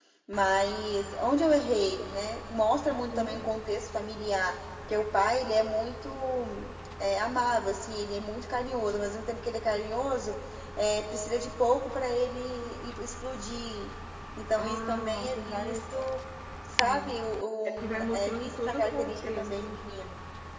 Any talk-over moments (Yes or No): Yes